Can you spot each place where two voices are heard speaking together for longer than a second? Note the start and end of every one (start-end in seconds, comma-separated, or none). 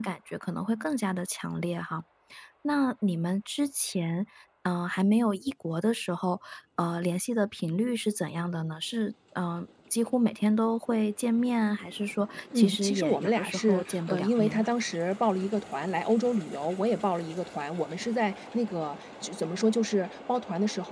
12.6-14.7